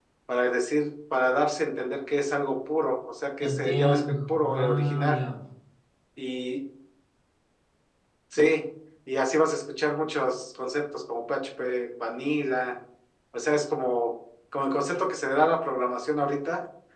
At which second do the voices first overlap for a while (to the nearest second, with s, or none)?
3 s